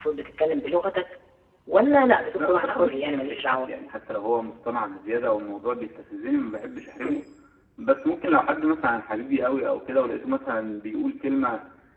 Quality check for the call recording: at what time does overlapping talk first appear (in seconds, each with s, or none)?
2.4 s